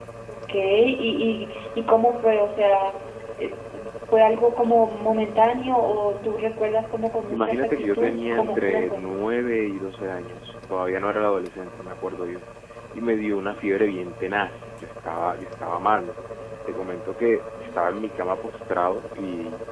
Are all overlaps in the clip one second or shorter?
No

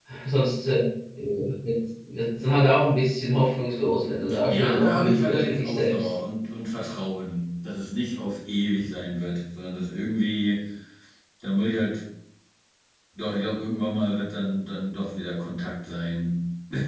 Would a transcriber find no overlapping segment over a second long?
No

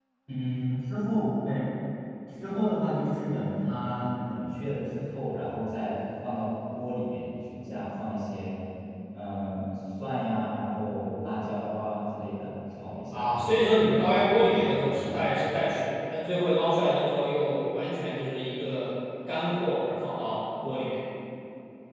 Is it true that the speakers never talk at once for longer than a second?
No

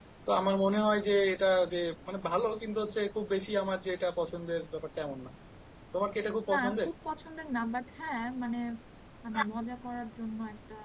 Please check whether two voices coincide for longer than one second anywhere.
No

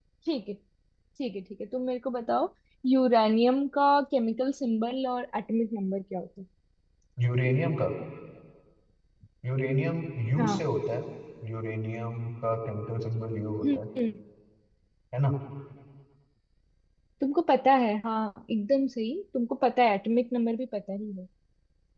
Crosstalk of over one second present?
No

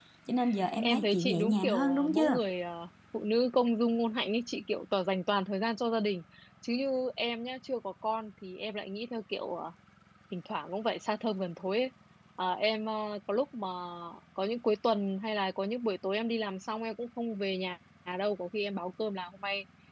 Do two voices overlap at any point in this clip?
Yes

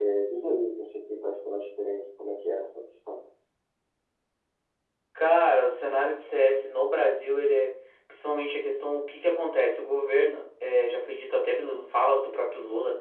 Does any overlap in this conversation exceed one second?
No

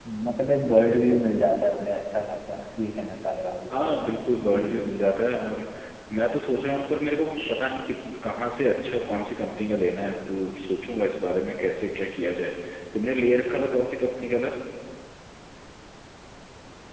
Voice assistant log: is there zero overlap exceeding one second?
Yes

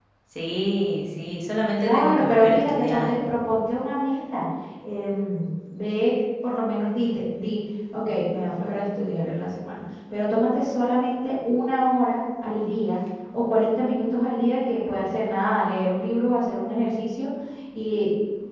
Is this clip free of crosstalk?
No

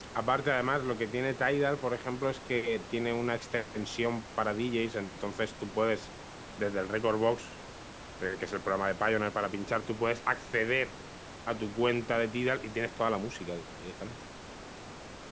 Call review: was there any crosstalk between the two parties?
No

